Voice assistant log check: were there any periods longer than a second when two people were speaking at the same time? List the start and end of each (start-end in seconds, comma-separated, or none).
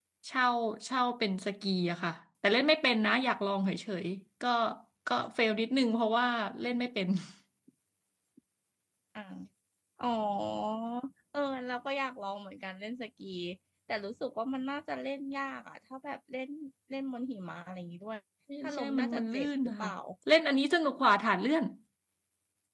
18.6-19.9